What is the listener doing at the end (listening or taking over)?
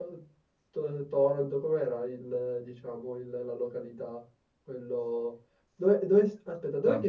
listening